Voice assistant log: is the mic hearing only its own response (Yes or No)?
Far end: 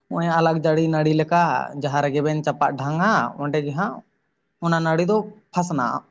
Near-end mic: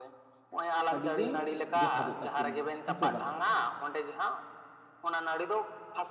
No